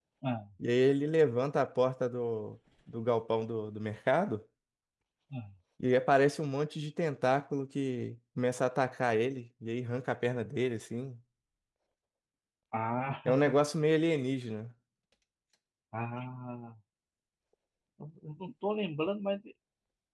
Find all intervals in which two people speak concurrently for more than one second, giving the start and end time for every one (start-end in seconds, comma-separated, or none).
none